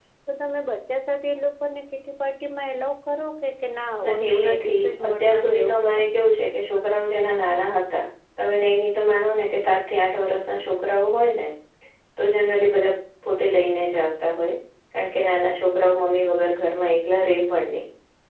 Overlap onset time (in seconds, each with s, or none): 4.0 s